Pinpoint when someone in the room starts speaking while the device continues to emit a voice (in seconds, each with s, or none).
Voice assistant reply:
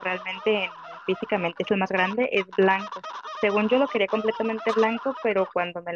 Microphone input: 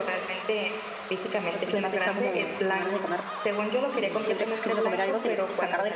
1.5 s